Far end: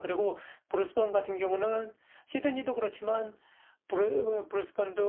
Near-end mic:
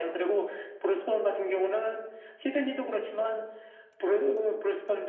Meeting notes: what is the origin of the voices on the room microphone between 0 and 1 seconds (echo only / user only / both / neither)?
echo only